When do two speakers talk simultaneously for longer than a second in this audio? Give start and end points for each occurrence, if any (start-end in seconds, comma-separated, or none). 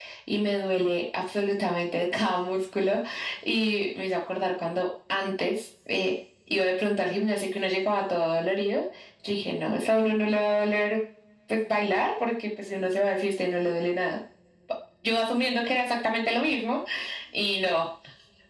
none